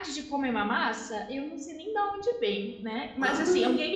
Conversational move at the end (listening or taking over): listening